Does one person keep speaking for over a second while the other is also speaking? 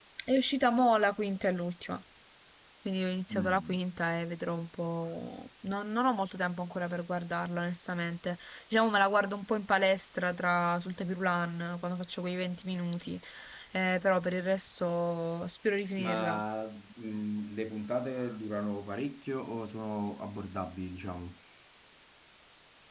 No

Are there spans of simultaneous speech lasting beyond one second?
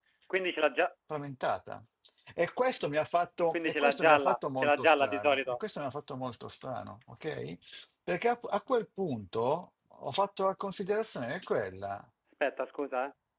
Yes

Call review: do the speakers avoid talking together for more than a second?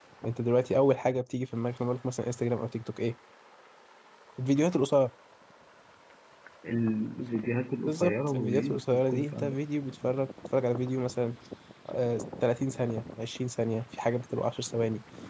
No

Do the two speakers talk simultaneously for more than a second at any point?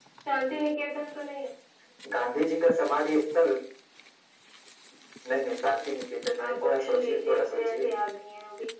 Yes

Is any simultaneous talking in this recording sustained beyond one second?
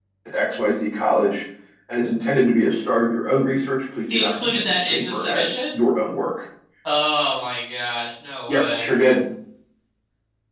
Yes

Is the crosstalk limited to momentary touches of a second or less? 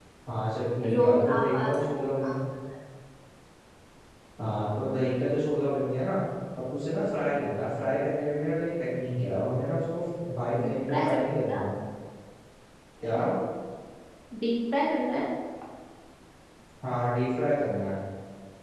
No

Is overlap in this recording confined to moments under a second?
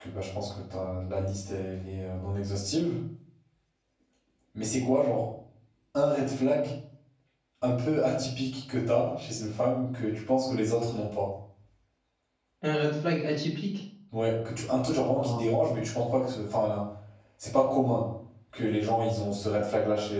Yes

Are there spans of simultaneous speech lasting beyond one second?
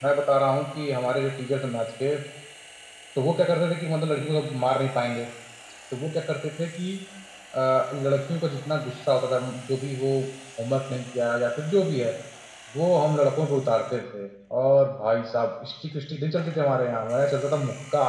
No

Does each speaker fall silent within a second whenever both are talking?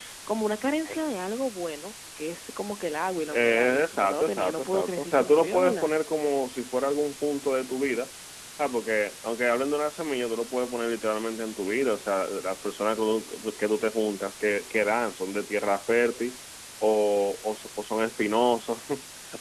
No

